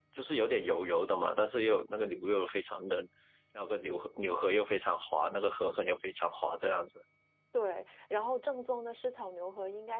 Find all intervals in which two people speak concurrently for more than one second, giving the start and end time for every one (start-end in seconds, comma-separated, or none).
none